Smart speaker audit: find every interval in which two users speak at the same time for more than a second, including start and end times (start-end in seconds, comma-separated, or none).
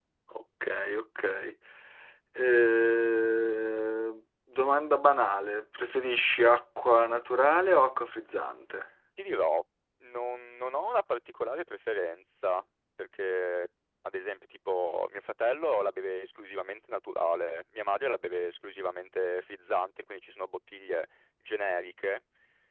none